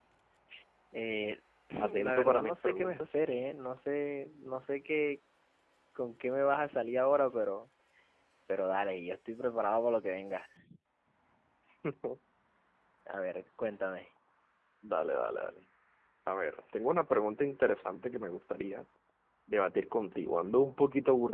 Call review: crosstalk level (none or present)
present